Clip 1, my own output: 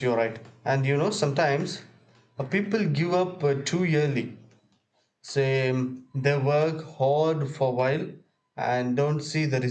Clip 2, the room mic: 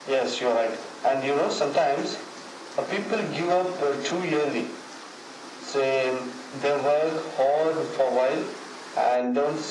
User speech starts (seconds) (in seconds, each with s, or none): none